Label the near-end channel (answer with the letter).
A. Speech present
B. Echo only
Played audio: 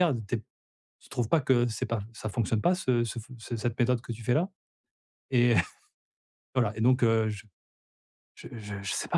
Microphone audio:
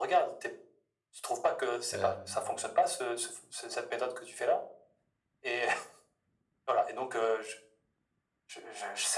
A